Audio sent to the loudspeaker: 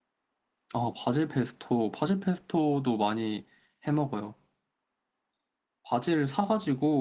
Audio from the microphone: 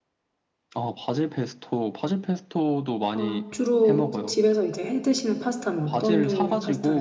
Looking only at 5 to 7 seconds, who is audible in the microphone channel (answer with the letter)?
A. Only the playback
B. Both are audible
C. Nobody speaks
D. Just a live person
B